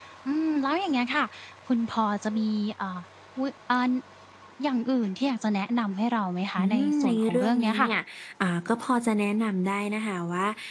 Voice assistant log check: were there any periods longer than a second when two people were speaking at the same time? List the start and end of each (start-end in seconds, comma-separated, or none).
6.6-7.9